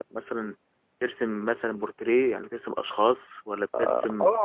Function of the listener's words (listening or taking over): taking over